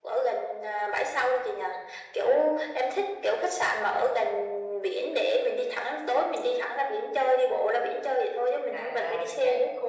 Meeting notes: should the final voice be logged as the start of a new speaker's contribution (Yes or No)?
Yes